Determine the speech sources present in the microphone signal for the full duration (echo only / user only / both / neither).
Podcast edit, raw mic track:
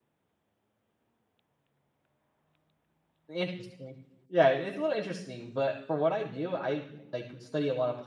user only